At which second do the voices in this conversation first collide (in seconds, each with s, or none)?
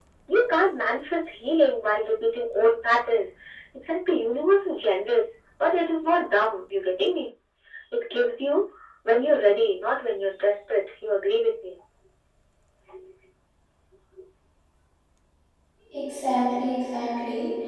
none